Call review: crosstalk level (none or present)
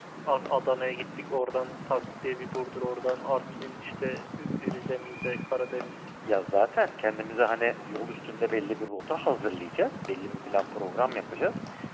none